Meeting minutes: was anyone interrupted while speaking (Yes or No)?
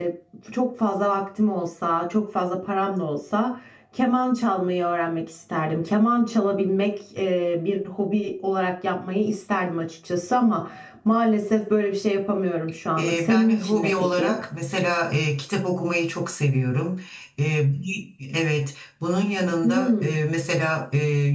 Yes